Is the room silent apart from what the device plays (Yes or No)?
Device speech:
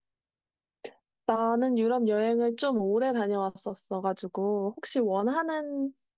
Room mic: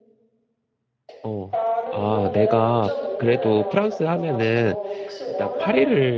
No